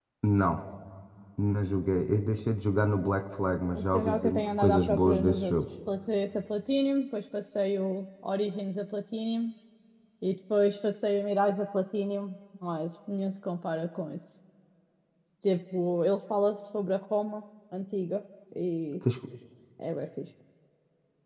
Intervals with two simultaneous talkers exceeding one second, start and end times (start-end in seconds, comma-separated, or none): 3.7-5.5